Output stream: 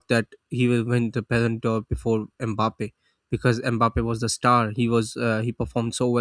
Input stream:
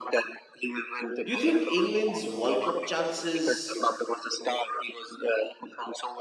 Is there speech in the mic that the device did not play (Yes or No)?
Yes